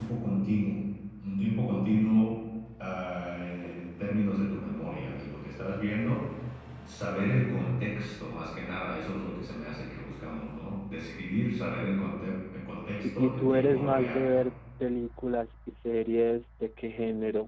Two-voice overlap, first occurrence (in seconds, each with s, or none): 12.9 s